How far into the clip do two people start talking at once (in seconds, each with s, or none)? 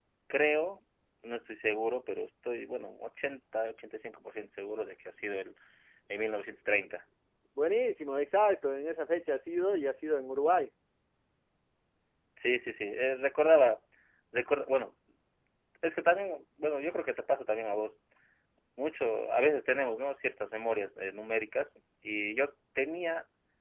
none